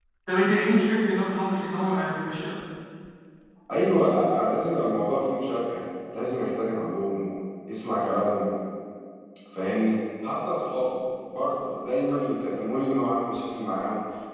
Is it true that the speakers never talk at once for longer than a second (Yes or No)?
Yes